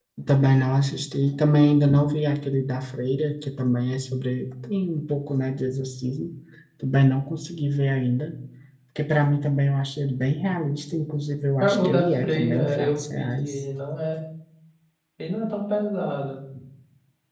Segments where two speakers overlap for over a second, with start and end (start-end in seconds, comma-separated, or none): 11.6-13.5